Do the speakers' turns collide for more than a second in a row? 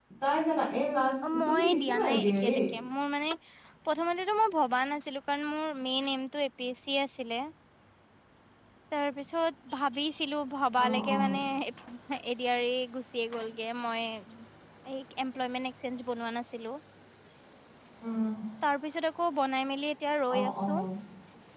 Yes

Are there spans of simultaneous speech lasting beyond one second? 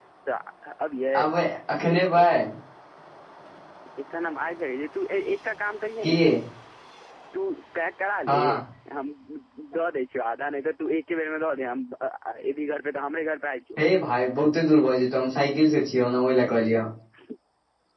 No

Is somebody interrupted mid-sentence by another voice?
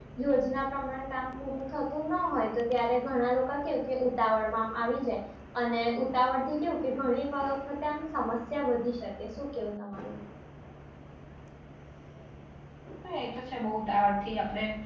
No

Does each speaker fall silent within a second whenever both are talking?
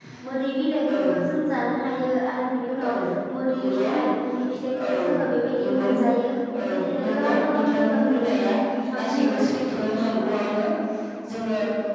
No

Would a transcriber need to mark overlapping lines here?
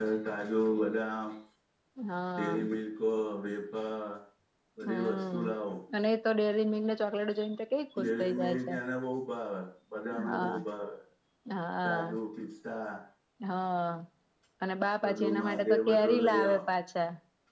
Yes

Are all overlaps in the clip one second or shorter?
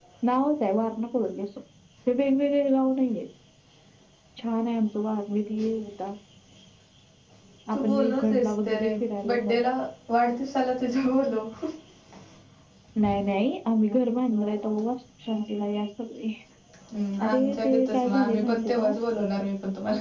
No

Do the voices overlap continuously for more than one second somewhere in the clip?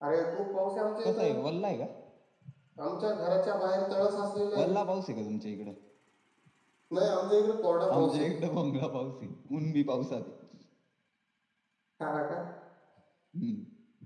No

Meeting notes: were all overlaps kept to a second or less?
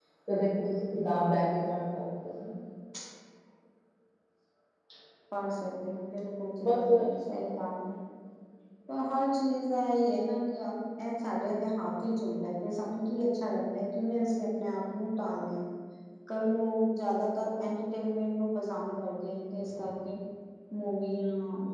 Yes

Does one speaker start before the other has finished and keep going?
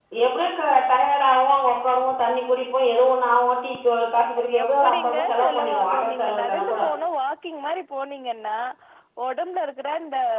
Yes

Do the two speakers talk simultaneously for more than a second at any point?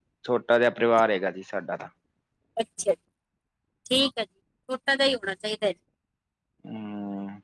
No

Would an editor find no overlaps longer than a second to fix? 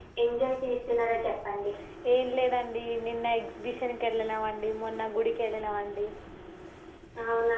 Yes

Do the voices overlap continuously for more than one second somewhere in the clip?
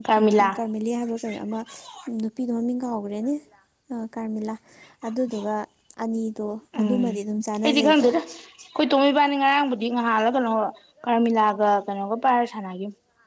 No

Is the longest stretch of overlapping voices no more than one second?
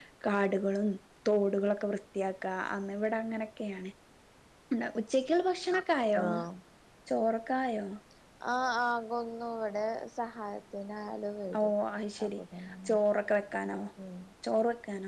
Yes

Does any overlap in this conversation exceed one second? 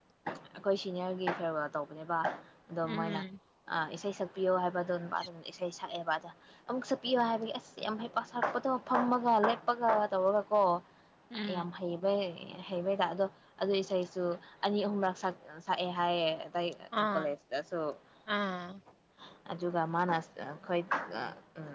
No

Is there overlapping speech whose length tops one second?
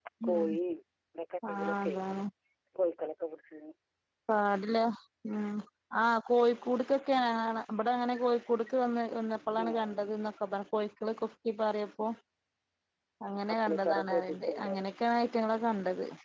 Yes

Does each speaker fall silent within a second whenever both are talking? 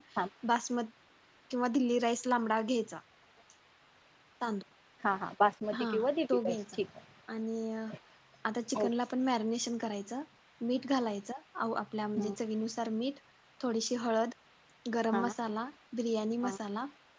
Yes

